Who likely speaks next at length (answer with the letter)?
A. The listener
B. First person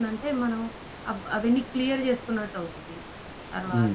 A